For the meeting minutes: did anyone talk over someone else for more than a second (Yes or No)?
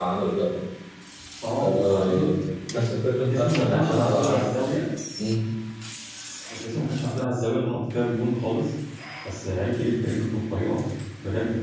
Yes